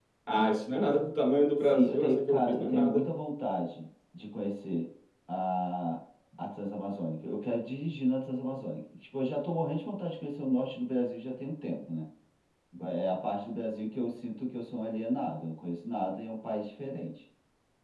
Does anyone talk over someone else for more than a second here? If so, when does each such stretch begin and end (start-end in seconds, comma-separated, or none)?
1.6-3.1